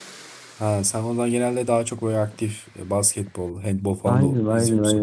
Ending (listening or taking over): taking over